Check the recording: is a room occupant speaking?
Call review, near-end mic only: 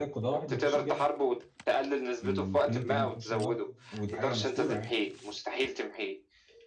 Yes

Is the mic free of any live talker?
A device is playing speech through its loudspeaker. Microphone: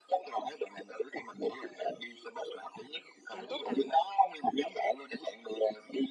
No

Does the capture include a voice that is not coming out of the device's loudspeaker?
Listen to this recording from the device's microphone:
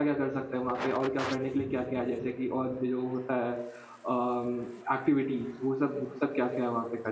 Yes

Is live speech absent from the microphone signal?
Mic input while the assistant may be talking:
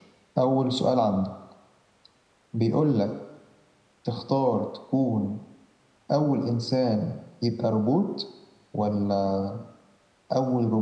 Yes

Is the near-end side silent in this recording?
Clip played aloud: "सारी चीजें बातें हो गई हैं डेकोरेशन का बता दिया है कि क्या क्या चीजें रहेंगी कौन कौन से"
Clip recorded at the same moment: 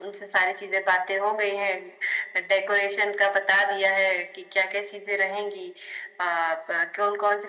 Yes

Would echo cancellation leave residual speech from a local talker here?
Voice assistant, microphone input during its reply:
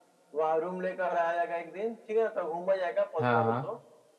Yes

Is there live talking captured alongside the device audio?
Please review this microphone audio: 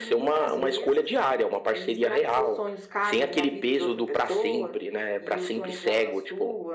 No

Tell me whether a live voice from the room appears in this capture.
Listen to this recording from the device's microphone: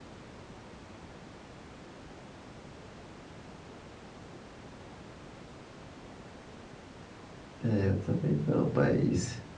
Yes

